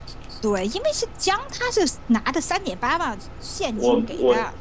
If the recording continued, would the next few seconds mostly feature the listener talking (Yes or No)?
Yes